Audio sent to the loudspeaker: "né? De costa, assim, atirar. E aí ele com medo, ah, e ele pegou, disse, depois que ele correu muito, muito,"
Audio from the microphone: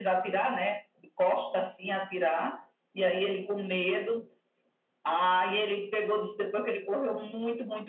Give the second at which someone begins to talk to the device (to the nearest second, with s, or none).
none